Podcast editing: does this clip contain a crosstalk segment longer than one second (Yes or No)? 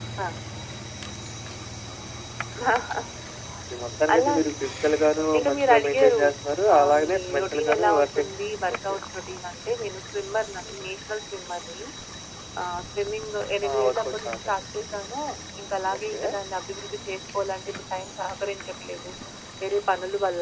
Yes